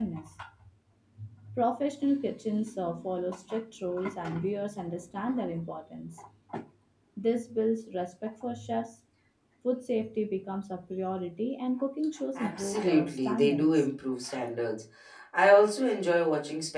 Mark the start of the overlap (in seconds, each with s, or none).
12.4 s